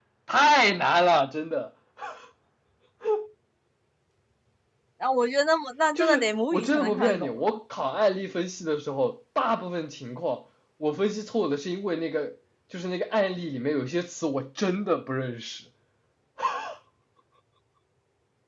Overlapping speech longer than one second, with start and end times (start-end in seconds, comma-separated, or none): 6.0-7.3